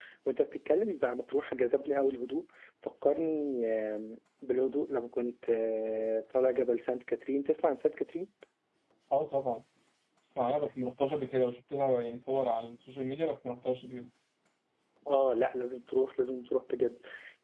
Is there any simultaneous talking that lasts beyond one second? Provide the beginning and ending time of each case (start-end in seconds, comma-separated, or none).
none